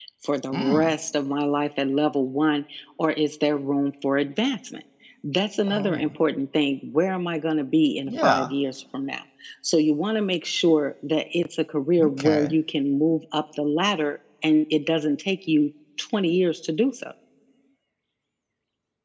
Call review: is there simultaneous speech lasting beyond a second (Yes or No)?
No